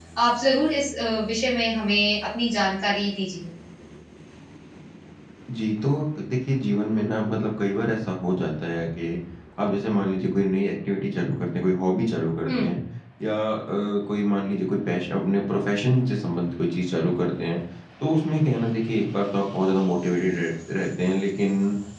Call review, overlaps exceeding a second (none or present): none